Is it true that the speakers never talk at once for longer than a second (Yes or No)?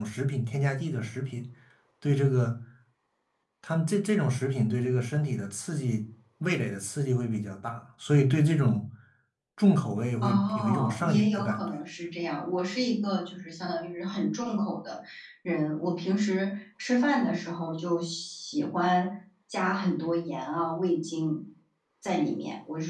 No